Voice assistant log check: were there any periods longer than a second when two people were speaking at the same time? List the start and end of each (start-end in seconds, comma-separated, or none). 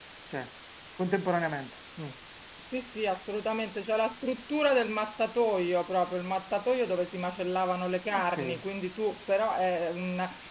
none